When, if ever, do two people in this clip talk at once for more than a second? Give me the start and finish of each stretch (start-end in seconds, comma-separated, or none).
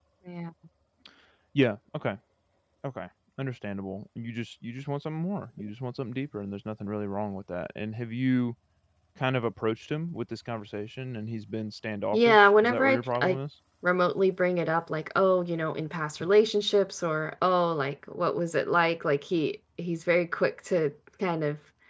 12.1-13.4